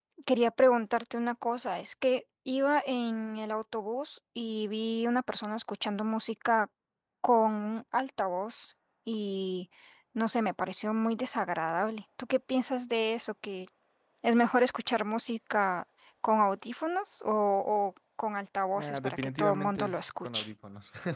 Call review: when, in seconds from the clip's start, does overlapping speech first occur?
18.8 s

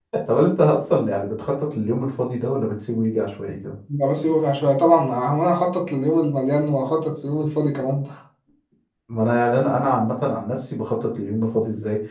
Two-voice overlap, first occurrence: none

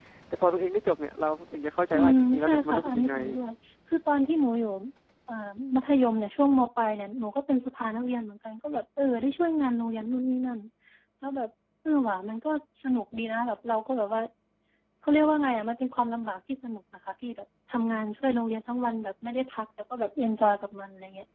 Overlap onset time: 1.9 s

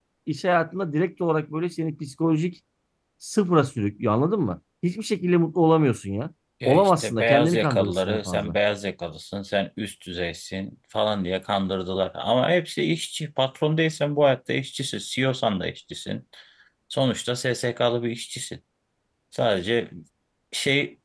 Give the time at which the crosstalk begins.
6.6 s

